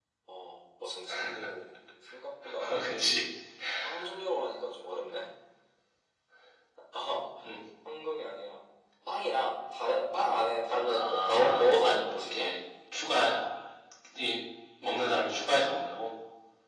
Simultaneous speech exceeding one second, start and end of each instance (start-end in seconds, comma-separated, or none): 10.9-12.5